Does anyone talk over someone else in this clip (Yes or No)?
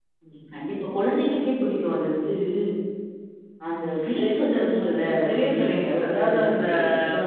Yes